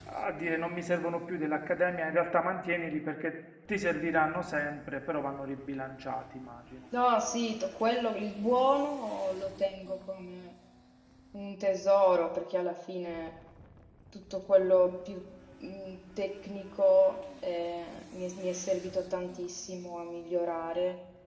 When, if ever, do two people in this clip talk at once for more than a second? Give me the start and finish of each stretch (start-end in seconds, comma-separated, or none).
none